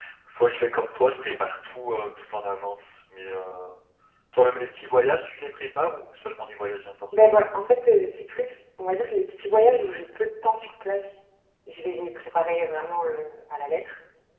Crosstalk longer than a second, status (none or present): none